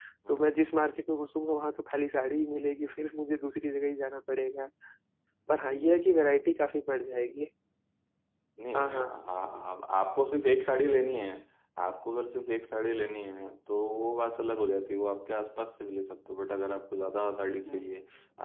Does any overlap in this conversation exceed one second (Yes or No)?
No